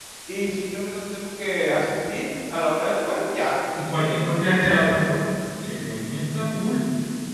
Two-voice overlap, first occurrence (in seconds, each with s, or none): 3.7 s